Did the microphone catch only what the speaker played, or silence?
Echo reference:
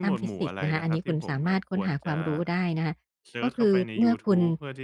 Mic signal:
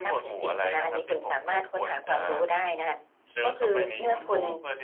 No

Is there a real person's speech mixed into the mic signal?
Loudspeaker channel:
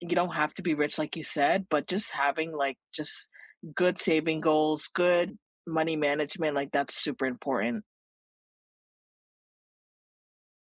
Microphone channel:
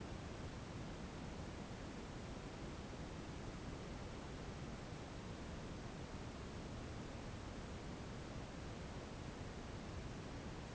No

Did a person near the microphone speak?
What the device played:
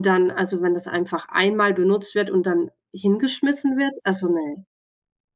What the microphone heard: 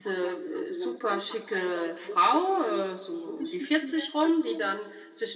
Yes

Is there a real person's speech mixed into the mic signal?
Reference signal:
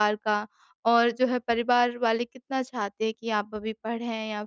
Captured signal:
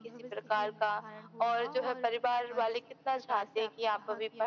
Yes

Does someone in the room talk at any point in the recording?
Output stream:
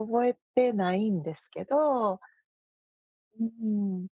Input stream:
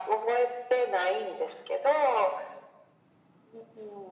No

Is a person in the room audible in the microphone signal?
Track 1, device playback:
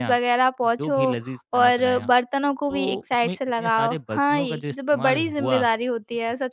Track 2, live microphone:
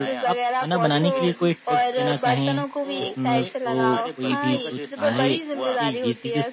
Yes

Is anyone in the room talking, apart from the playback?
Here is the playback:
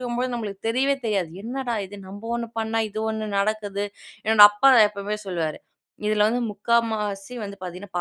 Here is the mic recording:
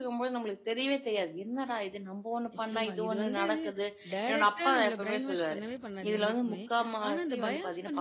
Yes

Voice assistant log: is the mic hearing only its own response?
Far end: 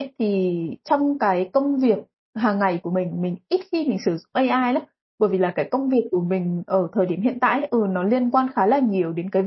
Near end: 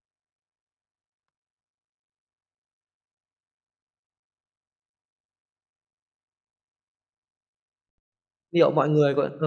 No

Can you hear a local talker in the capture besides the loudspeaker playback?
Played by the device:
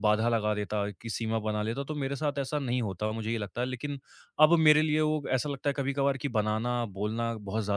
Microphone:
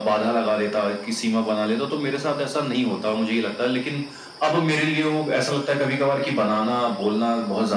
No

